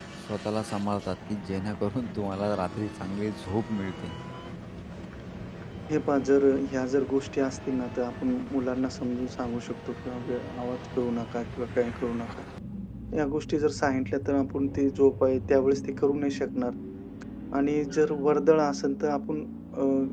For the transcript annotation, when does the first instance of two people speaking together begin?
none

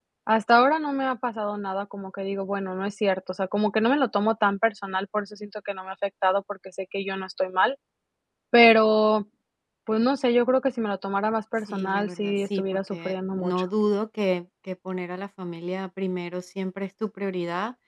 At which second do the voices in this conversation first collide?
11.7 s

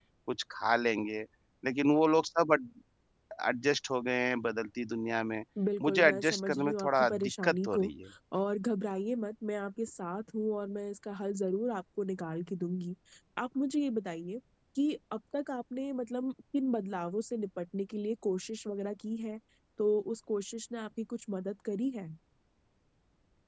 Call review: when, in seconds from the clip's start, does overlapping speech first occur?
5.8 s

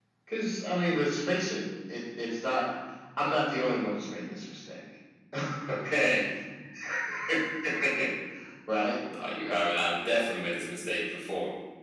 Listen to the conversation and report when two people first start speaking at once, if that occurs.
none

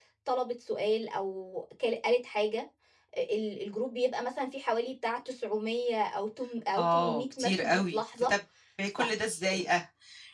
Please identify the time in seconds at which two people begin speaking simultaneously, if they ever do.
6.8 s

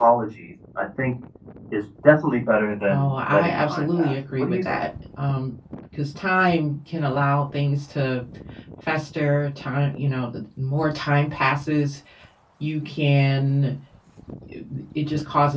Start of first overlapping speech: 2.8 s

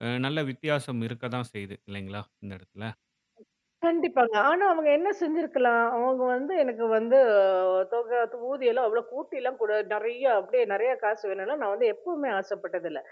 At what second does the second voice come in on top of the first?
none

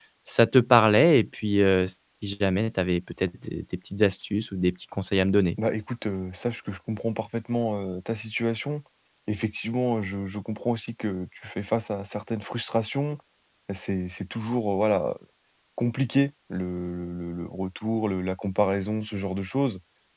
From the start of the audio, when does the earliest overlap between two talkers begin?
none

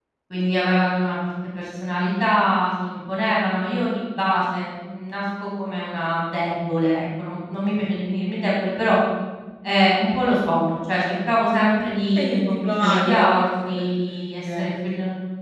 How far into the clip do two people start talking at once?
12.2 s

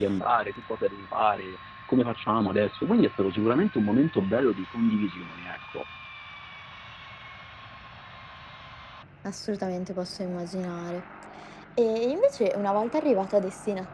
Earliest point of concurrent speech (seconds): none

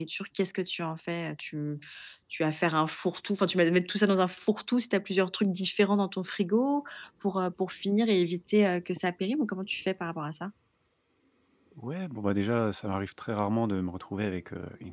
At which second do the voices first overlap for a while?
none

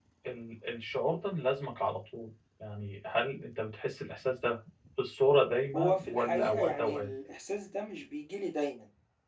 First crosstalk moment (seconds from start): 5.7 s

